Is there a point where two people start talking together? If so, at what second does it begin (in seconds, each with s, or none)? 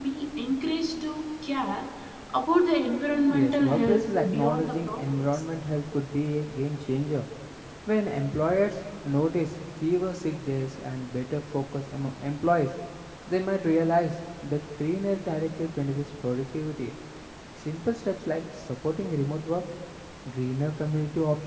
3.3 s